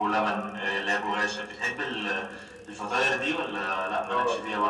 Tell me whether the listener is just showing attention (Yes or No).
No